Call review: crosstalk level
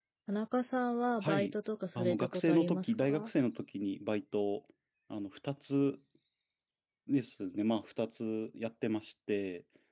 present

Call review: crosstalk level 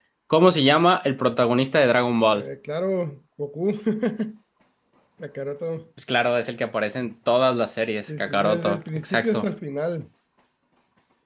present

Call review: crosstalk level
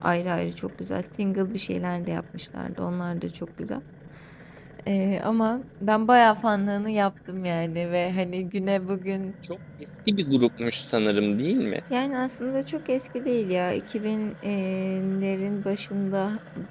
none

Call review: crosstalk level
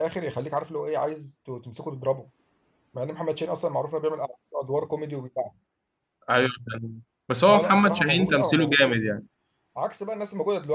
present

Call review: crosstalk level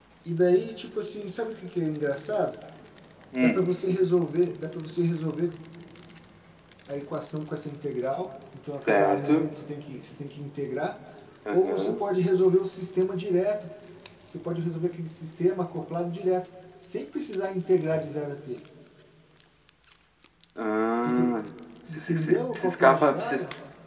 present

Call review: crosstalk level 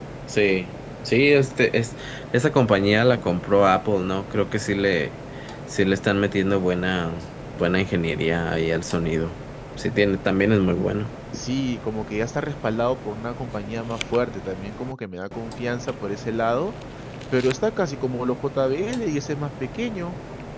none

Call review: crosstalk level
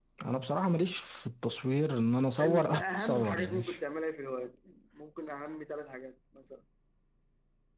present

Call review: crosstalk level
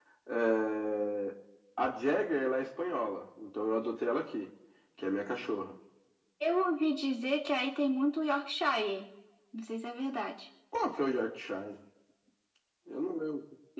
none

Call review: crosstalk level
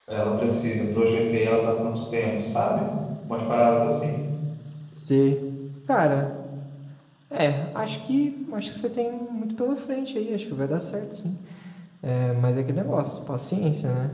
none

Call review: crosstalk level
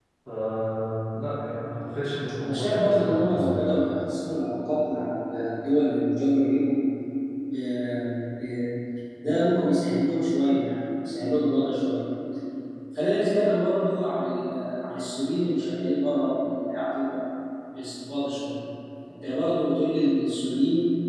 present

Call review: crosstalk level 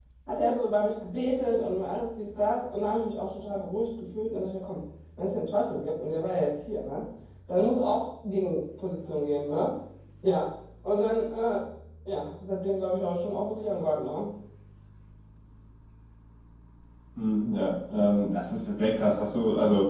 none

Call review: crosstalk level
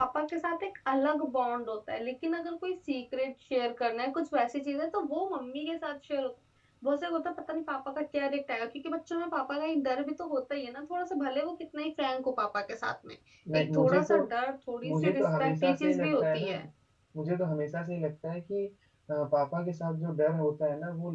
present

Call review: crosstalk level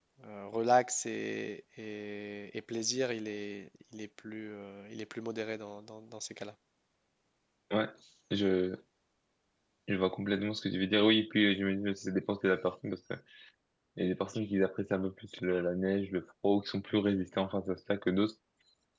none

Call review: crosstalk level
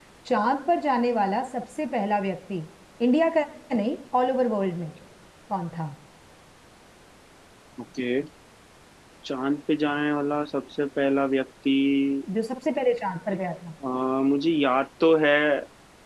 none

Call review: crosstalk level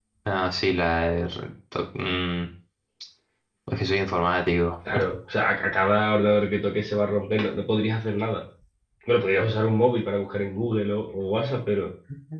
none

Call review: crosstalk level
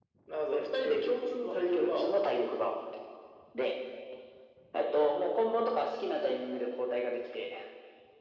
present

